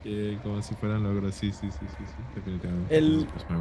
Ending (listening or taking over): taking over